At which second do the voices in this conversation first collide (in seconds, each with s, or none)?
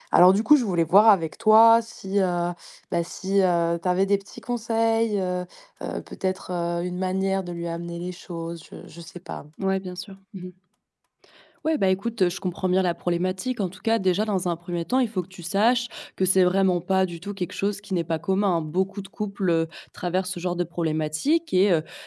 none